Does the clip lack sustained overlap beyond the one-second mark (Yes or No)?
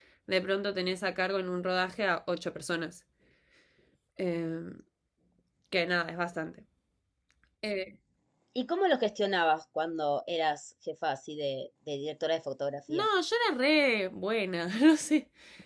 Yes